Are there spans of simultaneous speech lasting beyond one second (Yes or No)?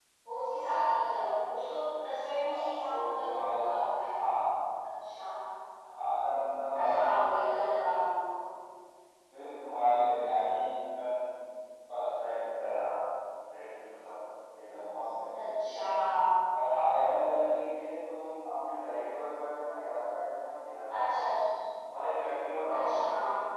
Yes